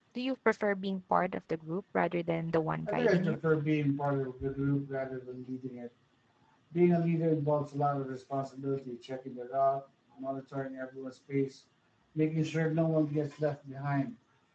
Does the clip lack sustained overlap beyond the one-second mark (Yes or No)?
Yes